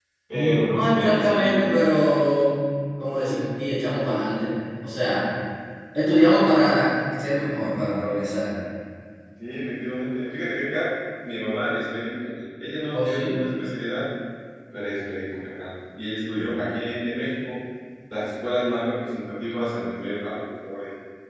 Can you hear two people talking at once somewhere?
Yes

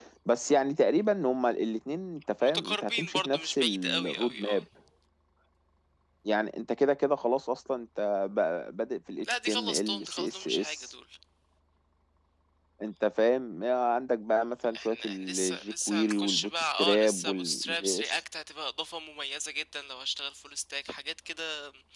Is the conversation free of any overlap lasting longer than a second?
No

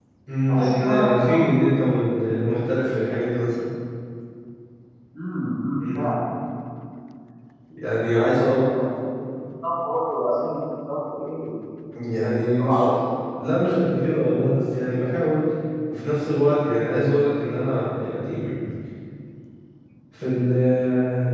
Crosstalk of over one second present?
Yes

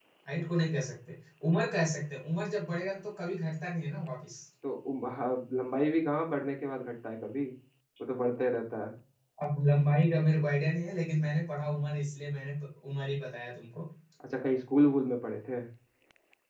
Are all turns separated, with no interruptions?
Yes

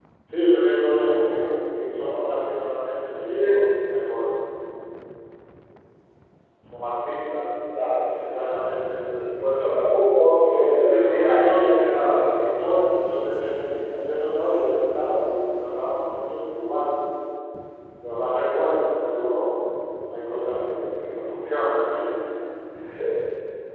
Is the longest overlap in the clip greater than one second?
Yes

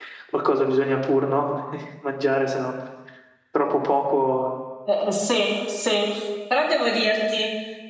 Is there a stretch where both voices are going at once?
No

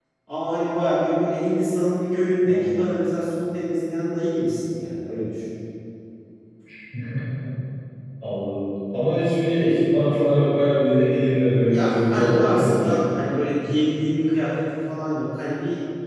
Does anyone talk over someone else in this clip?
Yes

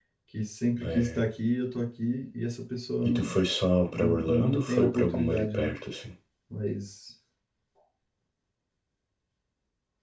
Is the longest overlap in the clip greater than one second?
Yes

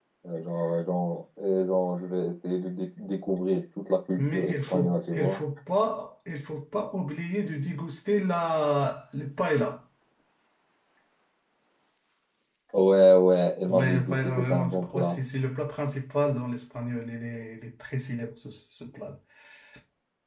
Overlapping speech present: Yes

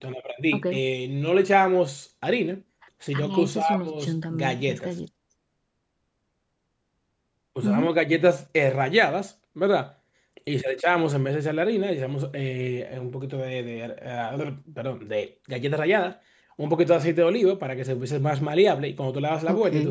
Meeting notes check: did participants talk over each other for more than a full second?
Yes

